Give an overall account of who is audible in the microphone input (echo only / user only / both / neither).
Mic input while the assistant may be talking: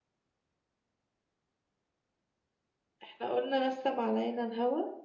user only